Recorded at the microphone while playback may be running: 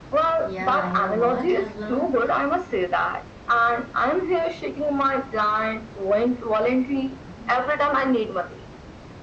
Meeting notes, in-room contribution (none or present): present